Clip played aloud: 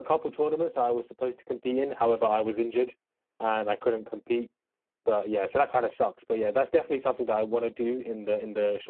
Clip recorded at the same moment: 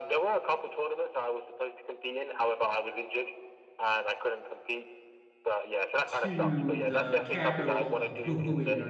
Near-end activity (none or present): present